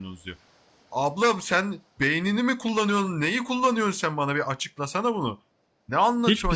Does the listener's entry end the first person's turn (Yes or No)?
Yes